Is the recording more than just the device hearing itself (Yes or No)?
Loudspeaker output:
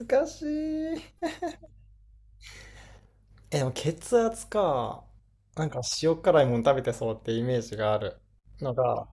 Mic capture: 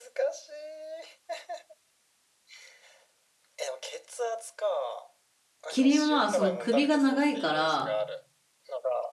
Yes